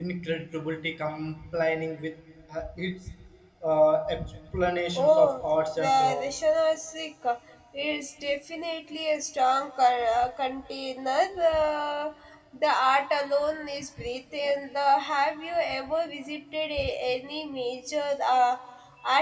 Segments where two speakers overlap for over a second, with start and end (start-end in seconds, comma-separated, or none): 5.0-6.3